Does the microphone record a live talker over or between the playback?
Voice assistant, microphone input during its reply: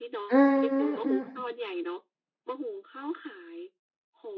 Yes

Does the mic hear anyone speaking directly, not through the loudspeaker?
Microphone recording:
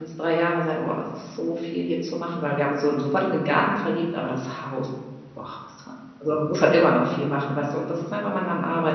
Yes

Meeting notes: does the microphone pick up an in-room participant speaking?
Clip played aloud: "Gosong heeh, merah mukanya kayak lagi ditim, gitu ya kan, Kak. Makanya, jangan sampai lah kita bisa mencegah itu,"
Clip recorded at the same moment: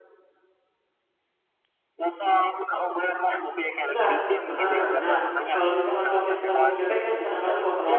Yes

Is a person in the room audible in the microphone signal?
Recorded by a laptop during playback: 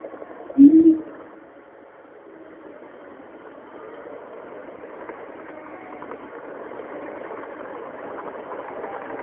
Yes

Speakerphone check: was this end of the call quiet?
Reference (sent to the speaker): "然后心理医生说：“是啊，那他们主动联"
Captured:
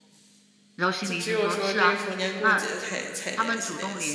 No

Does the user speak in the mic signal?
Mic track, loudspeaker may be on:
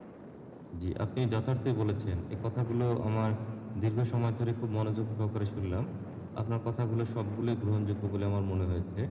Yes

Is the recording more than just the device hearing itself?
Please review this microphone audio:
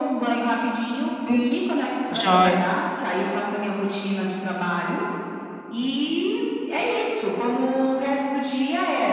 Yes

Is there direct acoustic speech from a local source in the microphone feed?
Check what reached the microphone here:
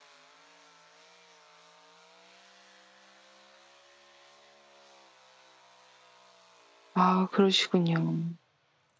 Yes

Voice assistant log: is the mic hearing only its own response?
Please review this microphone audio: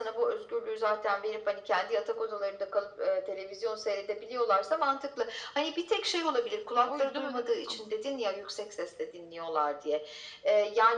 No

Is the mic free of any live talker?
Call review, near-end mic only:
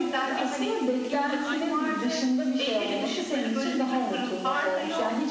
No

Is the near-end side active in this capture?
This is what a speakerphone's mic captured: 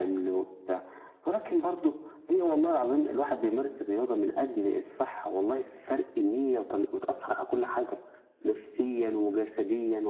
No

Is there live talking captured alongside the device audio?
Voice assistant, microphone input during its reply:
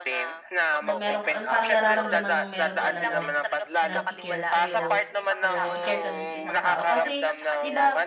Yes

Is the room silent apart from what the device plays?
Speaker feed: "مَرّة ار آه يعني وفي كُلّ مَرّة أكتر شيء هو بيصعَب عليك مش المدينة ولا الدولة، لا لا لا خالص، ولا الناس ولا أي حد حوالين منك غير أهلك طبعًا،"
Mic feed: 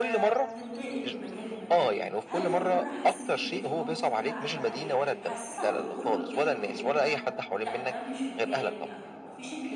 No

